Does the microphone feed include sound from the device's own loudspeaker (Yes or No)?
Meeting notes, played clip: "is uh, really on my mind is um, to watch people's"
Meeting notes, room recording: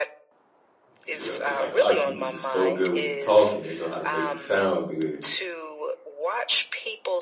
Yes